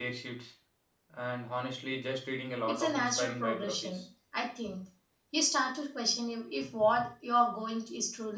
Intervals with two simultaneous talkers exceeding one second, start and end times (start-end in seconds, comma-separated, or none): 2.7-4.0